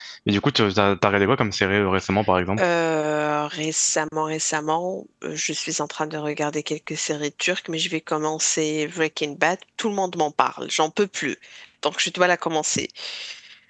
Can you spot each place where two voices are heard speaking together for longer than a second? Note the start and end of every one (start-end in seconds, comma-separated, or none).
none